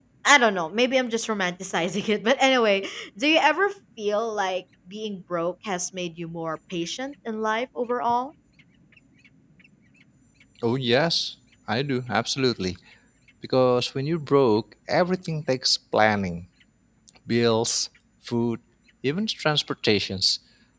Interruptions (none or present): none